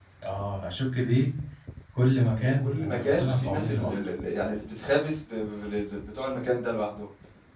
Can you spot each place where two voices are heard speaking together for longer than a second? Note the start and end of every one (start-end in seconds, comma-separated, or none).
2.2-4.0